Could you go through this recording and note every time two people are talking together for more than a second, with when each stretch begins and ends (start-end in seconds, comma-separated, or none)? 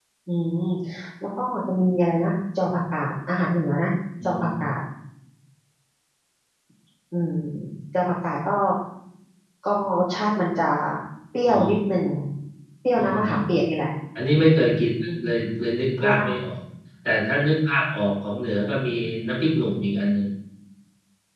none